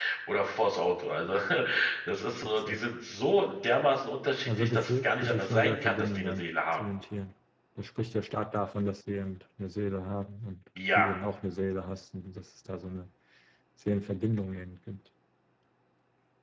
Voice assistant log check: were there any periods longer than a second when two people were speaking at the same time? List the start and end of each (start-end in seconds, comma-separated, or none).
4.5-6.8